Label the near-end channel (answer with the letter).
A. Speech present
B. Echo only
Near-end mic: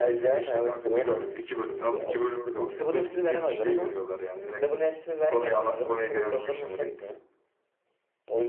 B